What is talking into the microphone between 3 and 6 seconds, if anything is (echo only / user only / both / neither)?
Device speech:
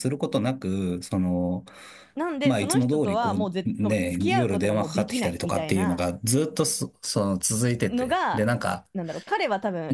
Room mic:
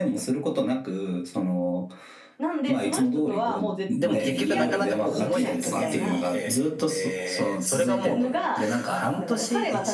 both